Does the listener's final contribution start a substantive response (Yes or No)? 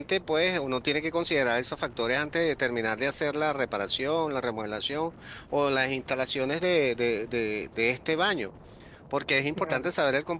No